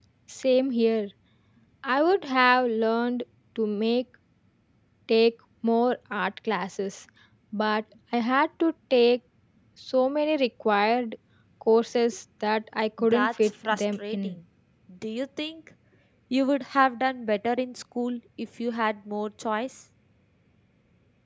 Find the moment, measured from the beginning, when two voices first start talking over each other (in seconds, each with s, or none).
13.0 s